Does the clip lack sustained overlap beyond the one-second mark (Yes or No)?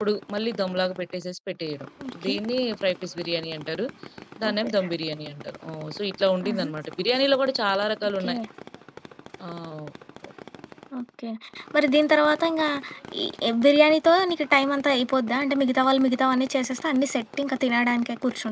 Yes